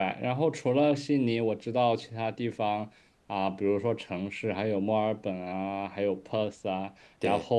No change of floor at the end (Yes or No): Yes